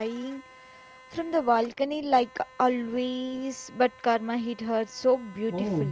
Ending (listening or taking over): taking over